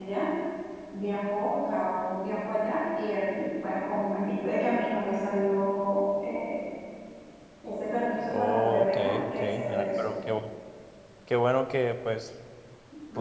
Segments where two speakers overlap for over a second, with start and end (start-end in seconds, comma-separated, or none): 8.3-9.8